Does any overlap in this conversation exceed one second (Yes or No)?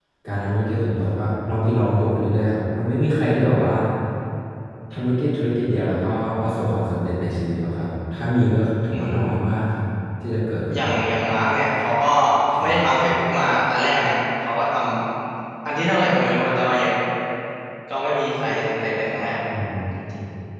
No